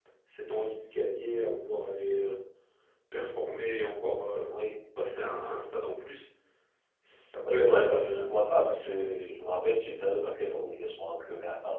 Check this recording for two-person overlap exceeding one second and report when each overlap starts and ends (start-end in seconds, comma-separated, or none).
7.5-9.1